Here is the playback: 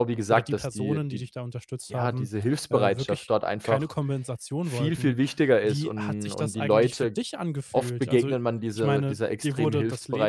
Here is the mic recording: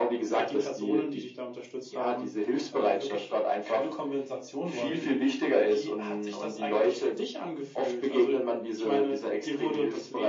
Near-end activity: none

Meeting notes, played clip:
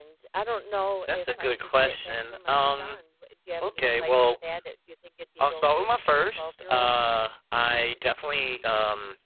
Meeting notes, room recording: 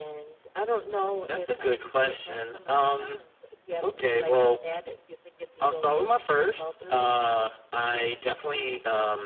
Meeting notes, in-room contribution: none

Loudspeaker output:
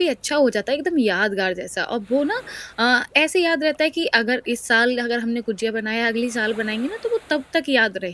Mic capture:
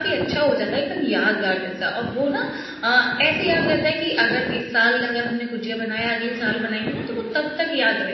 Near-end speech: none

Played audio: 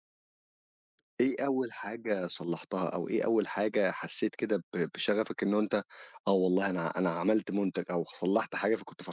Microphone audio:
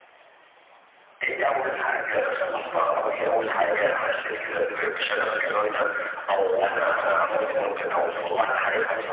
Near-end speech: present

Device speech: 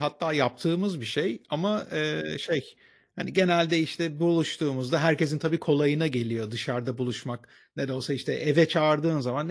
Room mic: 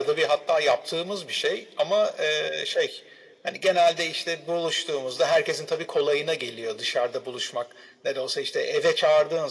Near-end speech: none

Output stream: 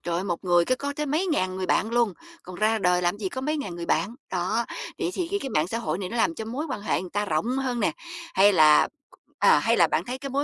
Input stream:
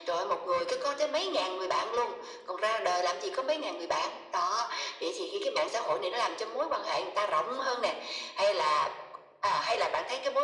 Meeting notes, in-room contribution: none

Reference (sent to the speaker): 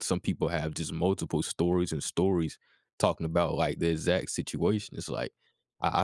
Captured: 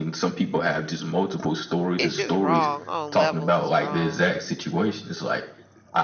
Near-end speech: present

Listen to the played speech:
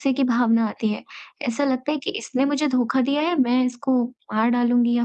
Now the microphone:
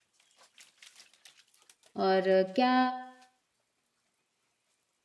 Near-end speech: present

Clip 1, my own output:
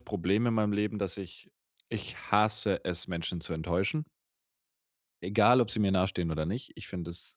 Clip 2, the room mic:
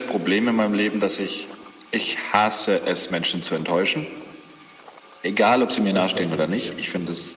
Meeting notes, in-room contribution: present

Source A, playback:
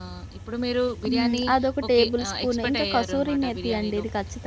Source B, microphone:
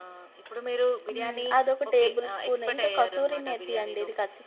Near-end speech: none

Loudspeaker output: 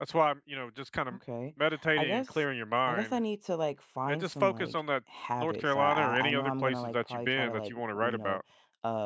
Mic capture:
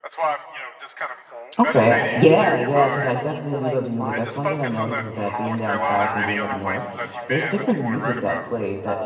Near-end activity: present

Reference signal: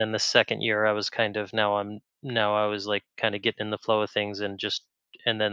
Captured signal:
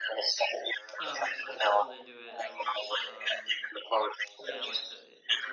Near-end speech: present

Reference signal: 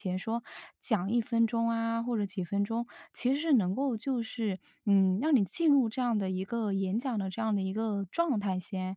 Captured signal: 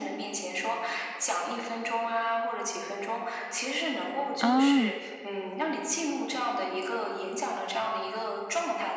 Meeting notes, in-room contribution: present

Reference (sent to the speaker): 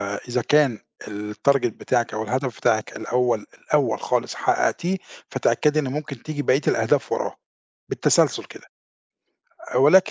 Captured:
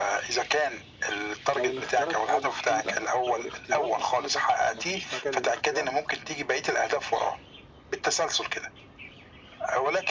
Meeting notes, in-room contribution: present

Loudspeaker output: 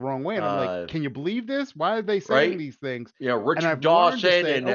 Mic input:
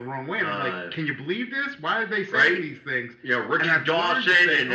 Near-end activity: none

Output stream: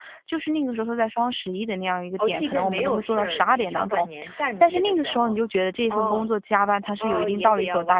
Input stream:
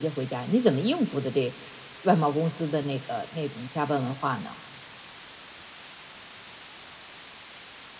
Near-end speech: present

